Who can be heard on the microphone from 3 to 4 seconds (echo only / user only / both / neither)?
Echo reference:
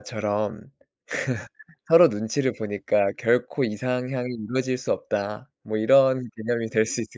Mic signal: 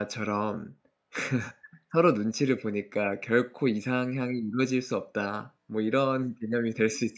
echo only